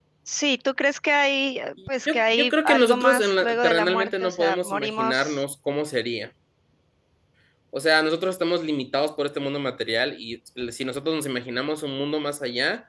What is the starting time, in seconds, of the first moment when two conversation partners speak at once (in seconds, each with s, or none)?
2.1 s